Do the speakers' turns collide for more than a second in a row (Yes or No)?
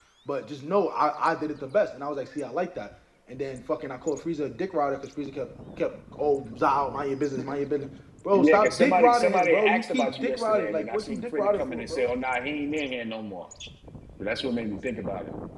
Yes